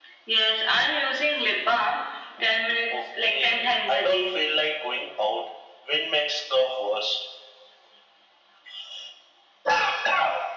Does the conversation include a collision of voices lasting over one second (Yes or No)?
Yes